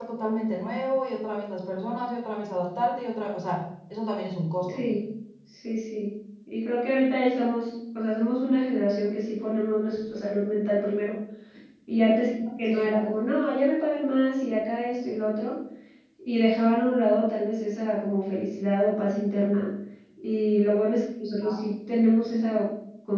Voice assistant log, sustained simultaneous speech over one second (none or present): none